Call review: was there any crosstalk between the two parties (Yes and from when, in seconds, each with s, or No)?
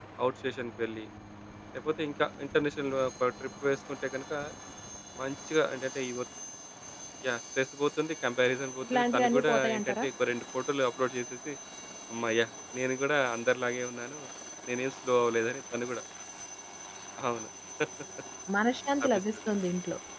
Yes, from 8.8 s